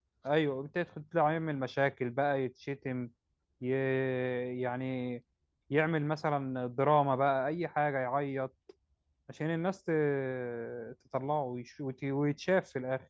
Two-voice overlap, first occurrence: none

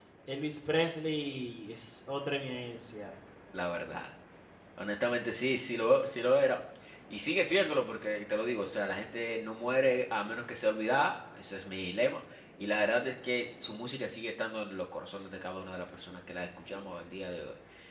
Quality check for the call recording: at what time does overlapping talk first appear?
none

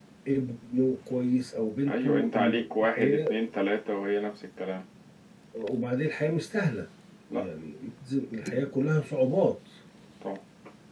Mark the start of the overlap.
1.9 s

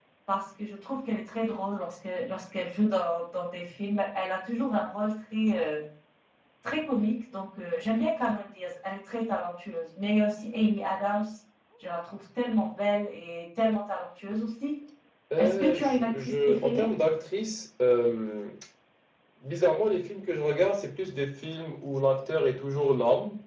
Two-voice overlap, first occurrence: 15.4 s

